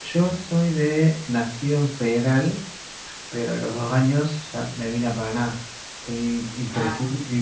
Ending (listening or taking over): listening